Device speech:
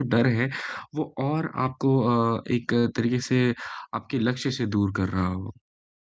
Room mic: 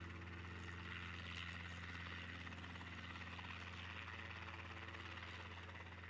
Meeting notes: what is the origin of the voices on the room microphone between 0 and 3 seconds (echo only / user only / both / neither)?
neither